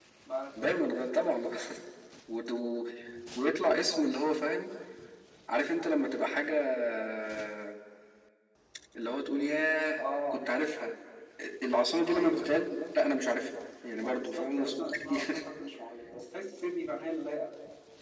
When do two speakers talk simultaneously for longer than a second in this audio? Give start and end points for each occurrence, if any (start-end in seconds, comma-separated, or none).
14.0-15.4